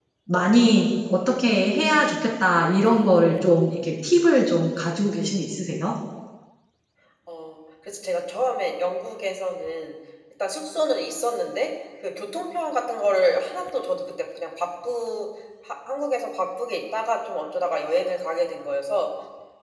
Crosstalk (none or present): none